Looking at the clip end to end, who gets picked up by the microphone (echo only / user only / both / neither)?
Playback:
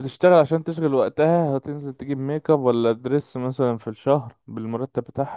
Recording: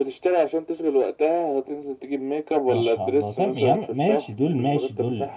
both